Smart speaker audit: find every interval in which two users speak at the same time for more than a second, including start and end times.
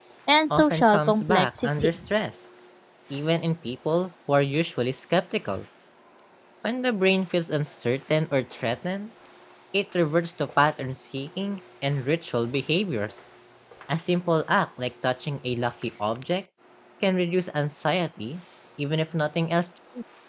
0.5-1.9

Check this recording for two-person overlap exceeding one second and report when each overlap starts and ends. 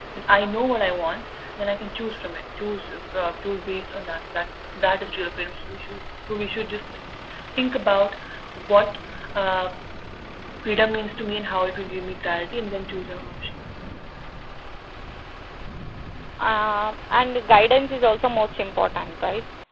none

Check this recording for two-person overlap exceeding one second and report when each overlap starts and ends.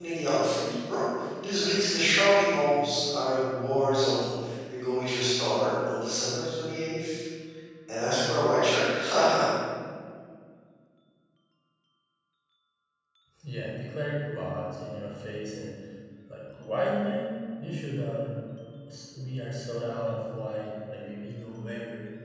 none

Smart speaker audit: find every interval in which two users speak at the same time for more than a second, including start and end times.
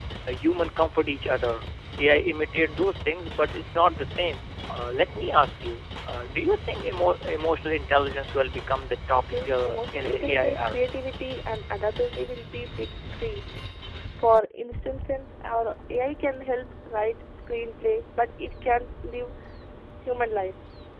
9.1-10.8

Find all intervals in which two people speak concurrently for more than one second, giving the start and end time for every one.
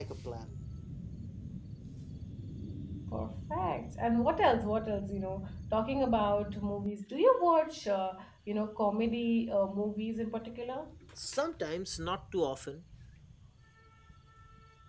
none

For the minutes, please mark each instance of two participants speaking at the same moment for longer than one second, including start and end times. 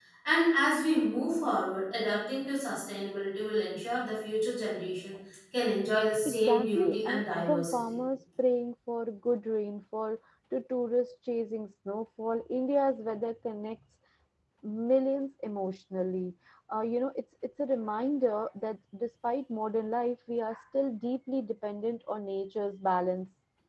6.2-8.0

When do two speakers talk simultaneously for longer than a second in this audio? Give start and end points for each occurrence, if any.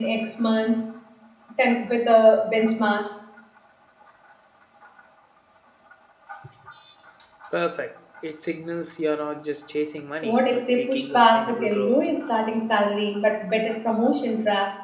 10.2-12.0

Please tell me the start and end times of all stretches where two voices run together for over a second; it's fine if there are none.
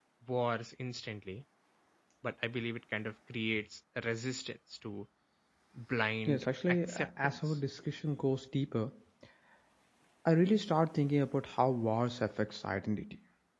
6.2-7.6

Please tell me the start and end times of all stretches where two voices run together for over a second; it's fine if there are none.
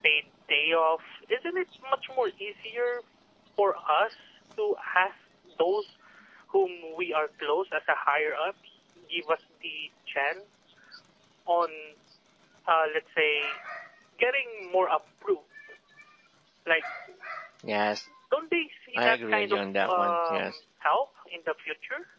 19.0-20.6

